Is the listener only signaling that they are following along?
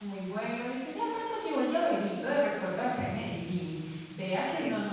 Yes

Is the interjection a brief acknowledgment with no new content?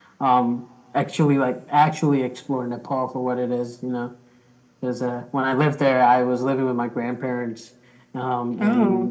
Yes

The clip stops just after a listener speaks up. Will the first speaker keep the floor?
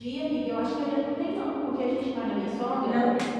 Yes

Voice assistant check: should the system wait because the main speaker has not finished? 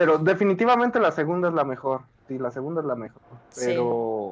Yes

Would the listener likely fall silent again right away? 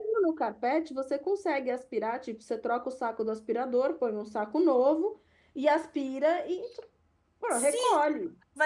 No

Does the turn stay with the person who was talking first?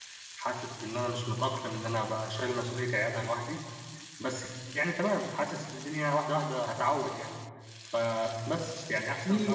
No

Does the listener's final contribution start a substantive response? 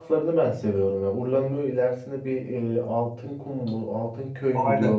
Yes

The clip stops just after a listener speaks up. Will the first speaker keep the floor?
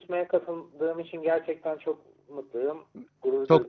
No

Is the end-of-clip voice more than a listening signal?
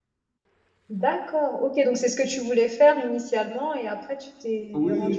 Yes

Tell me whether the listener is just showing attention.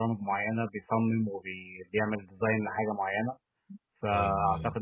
Yes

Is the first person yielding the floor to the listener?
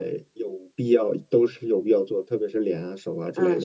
Yes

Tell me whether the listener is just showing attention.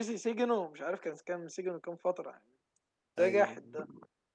Yes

